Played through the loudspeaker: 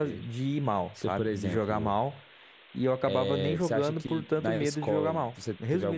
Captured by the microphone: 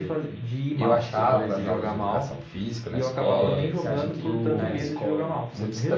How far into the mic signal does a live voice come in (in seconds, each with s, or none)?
0.8 s